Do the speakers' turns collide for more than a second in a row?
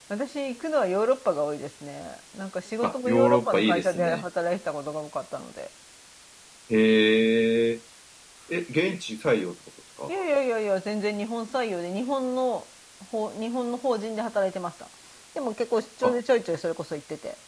Yes, from 2.8 s

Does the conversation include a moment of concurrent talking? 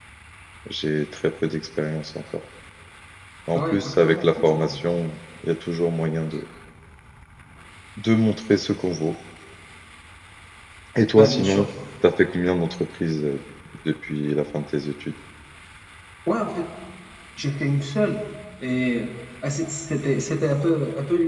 Yes, from 3.6 s

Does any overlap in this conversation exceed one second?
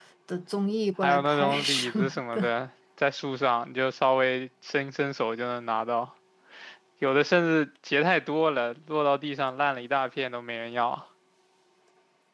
Yes, from 1.0 s

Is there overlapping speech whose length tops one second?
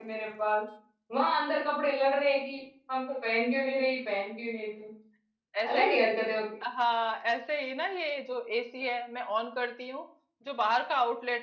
No

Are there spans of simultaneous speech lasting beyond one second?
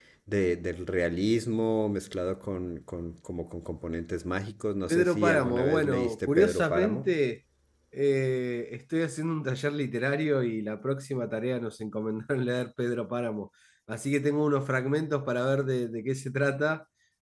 Yes, from 4.9 s

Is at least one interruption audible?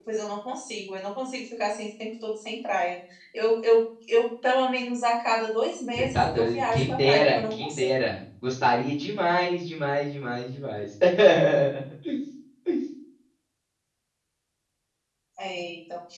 Yes, from 6.0 s

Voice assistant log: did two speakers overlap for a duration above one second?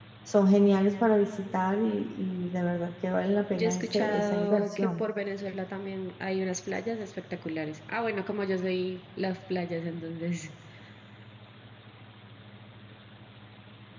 Yes, from 3.5 s

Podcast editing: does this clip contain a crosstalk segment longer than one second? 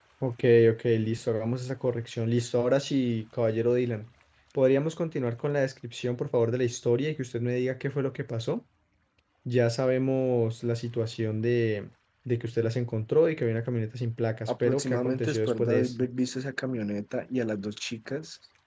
Yes, from 14.5 s

